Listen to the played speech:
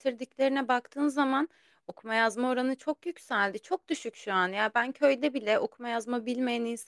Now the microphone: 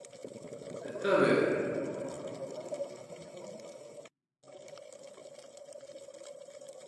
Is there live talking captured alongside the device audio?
Yes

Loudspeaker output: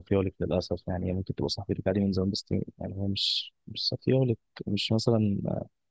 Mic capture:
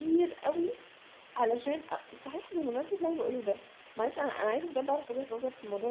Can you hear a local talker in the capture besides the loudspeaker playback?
Yes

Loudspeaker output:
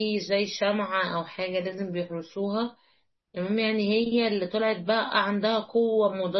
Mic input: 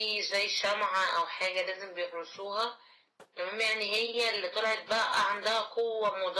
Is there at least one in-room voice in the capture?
No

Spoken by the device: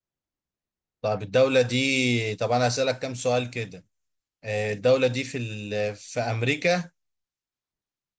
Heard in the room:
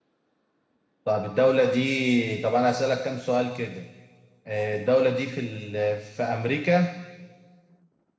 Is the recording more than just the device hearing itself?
No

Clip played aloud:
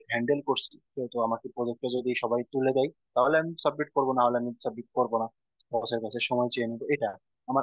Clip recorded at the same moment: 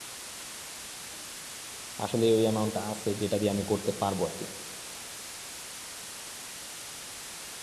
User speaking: Yes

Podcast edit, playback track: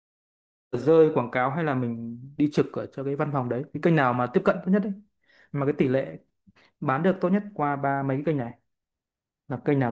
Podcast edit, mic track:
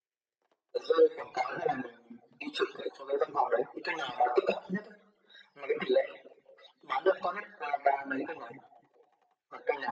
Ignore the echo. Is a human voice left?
No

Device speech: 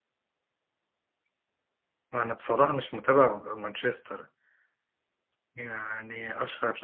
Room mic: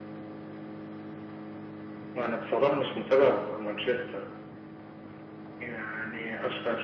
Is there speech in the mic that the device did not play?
No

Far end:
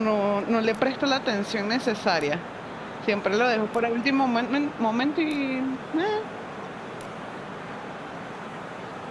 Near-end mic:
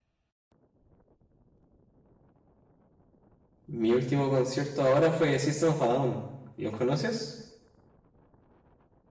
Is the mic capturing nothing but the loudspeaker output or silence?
No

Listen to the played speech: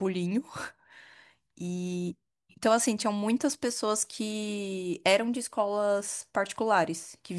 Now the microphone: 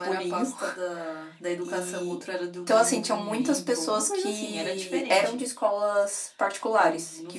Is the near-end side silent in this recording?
No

